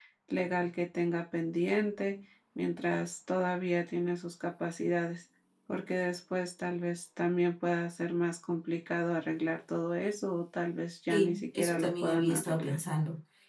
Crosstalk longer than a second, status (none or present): present